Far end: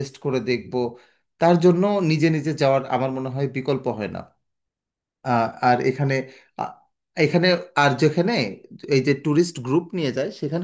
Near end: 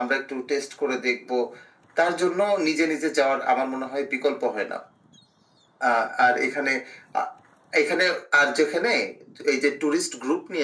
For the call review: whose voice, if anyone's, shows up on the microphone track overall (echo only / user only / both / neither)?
echo only